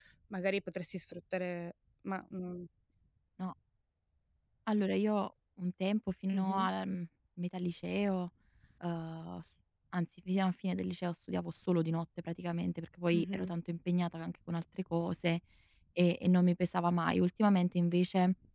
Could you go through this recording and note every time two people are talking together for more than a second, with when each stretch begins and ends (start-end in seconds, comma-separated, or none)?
none